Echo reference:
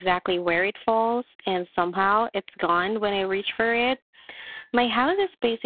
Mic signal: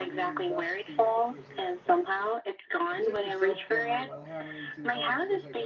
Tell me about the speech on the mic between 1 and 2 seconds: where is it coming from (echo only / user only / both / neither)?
both